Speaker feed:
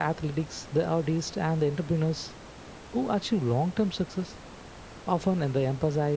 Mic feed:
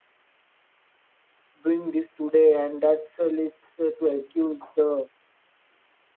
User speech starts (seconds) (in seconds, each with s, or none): 1.7 s